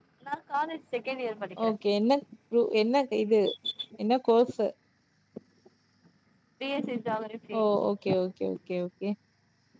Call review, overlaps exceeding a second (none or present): none